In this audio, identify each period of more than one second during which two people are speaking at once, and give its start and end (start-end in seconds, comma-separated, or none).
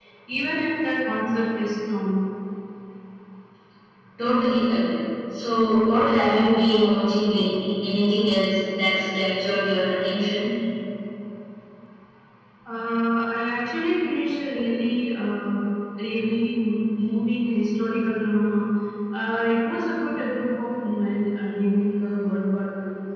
none